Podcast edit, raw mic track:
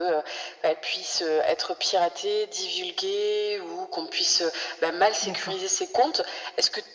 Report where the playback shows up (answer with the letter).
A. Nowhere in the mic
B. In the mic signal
B